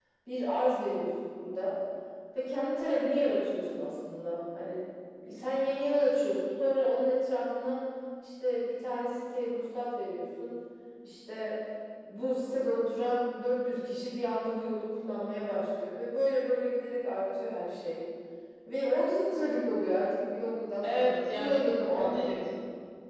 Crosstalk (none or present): present